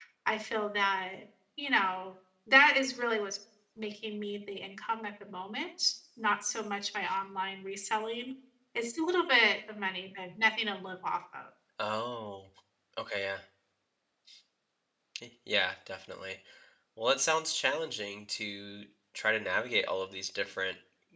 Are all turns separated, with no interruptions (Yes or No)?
Yes